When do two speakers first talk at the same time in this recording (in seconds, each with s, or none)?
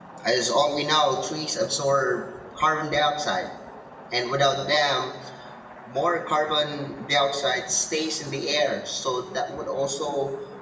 none